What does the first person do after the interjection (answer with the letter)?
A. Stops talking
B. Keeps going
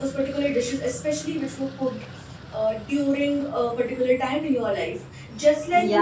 A